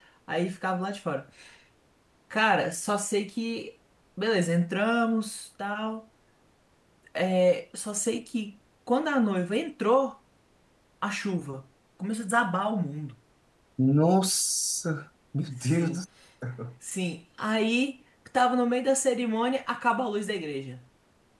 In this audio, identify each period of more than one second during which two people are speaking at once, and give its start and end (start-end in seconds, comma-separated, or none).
none